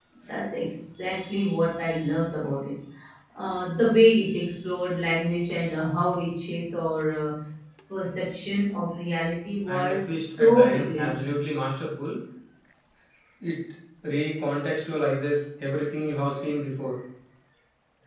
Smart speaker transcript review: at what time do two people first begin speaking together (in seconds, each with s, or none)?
9.7 s